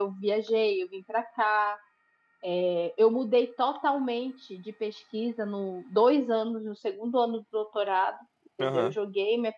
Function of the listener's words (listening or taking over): listening